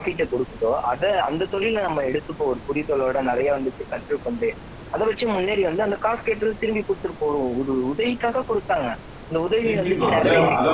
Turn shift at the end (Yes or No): Yes